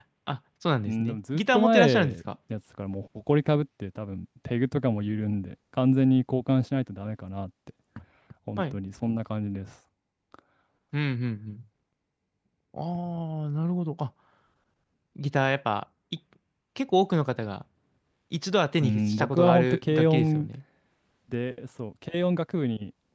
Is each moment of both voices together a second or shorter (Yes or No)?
No